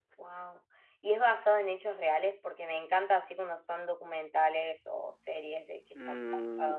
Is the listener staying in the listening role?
No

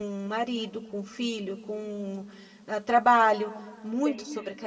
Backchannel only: No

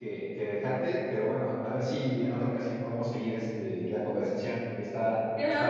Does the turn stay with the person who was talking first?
No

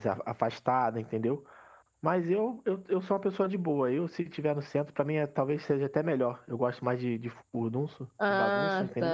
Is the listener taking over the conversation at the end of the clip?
Yes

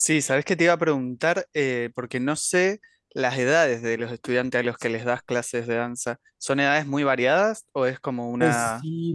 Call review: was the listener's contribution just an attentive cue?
No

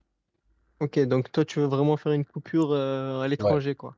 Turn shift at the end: Yes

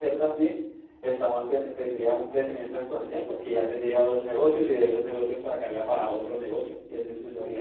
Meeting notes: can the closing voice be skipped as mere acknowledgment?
No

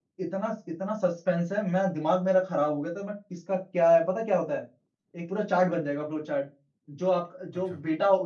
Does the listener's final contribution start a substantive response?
No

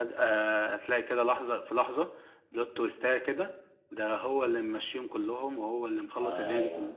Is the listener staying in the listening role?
Yes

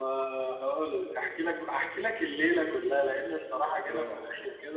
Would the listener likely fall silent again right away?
Yes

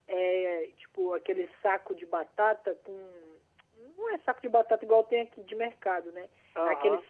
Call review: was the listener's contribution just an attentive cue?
Yes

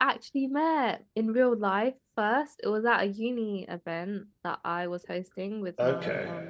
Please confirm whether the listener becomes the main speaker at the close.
No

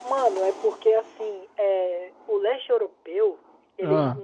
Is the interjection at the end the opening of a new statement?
No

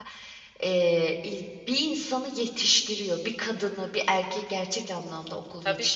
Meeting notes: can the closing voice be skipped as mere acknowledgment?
No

